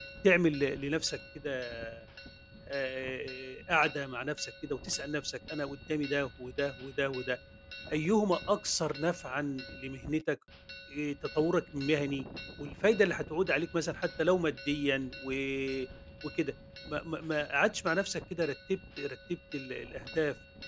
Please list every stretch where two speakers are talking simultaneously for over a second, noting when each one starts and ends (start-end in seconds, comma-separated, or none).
none